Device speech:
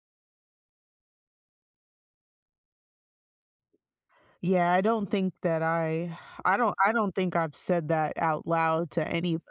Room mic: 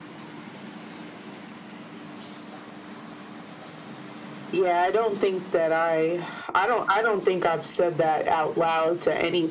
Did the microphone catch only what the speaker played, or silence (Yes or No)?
Yes